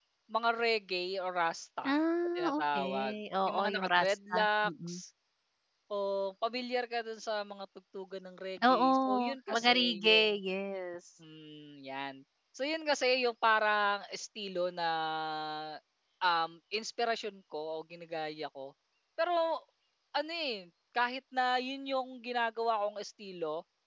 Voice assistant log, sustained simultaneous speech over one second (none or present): present